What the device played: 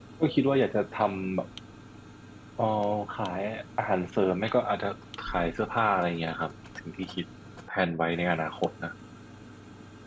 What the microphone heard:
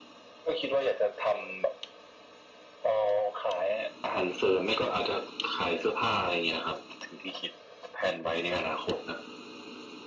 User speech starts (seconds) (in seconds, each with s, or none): none